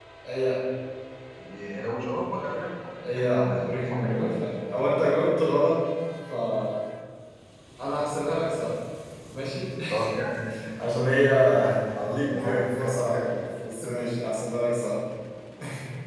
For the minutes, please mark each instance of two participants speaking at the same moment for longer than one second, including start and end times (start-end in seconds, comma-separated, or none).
3.1-4.3, 12.1-13.4